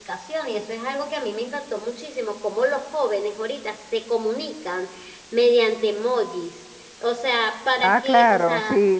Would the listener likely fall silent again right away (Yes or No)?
No